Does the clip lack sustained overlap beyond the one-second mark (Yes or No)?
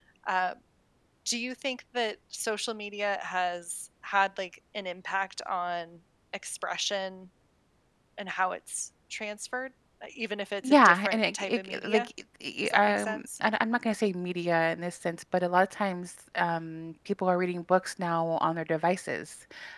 No